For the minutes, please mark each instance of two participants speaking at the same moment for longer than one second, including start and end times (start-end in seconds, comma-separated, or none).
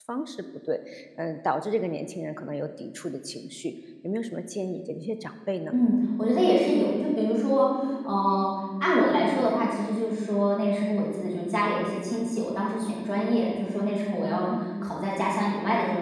none